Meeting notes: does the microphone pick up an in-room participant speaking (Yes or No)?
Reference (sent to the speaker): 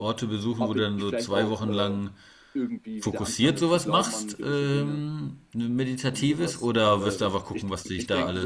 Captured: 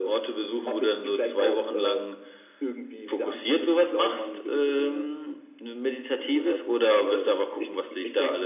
No